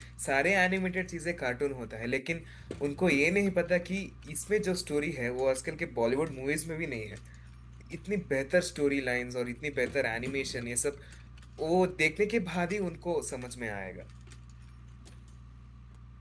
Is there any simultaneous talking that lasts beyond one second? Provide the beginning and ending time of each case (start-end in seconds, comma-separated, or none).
none